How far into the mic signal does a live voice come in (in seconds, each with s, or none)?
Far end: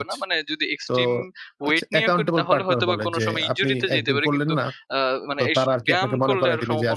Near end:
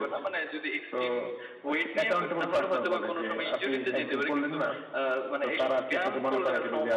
3.8 s